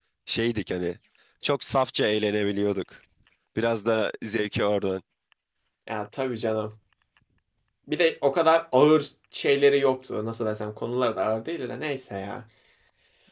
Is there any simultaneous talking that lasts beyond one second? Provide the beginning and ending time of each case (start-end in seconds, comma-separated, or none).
none